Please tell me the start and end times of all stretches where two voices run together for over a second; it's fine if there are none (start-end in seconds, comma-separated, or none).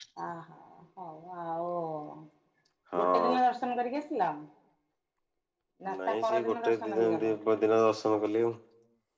6.1-7.3